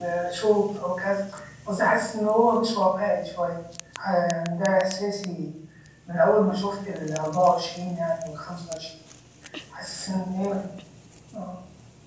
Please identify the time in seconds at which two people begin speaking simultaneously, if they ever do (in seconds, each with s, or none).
none